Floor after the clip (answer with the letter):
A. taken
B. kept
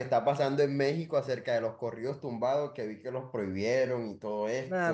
A